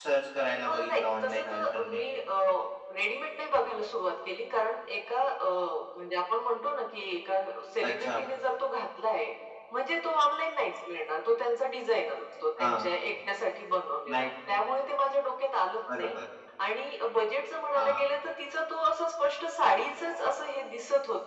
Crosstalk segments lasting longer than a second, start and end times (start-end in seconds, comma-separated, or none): 0.7-2.2